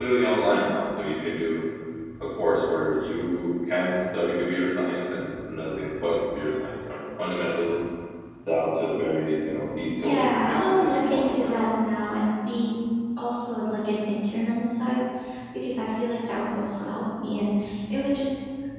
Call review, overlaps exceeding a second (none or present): present